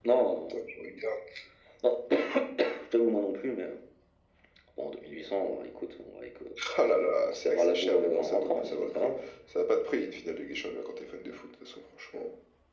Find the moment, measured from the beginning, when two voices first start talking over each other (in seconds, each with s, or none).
7.2 s